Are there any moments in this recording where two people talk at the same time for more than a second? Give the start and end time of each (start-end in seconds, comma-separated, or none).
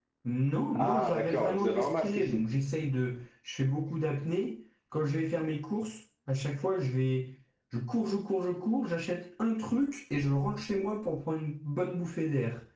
0.8-2.4